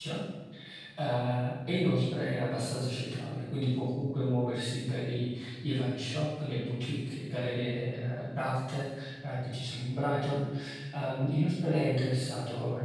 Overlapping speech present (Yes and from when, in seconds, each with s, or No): No